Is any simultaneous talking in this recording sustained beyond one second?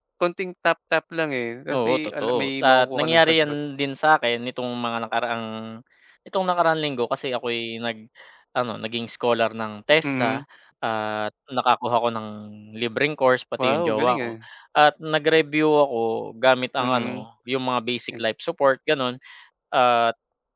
Yes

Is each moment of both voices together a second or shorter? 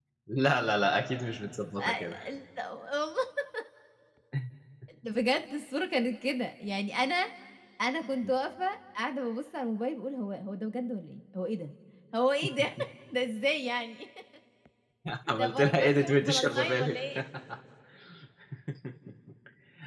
No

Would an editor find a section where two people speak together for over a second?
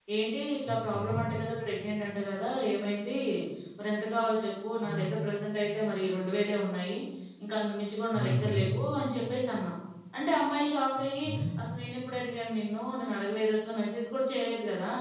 No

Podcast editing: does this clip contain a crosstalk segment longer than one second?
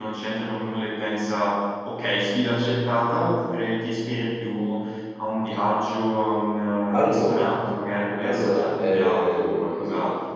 Yes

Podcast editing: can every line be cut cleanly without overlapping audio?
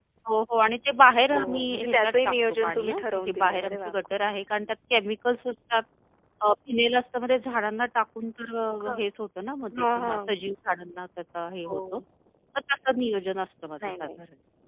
No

